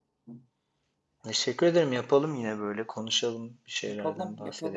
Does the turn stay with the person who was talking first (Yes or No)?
No